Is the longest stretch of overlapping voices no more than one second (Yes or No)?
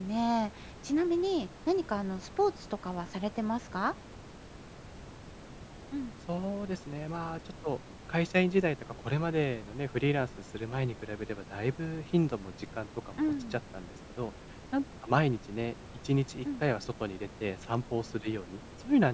Yes